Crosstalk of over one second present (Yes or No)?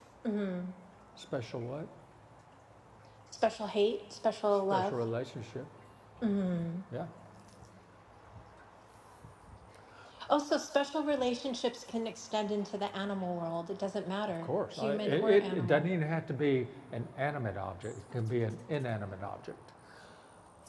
Yes